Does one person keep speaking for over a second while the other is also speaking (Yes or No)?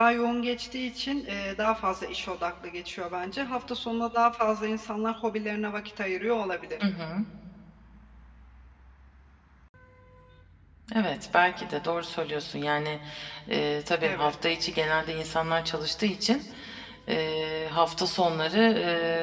No